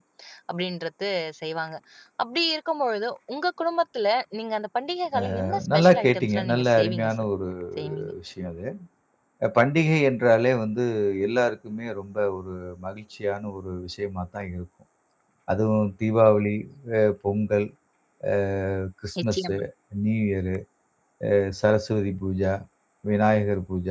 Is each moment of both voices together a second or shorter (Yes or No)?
No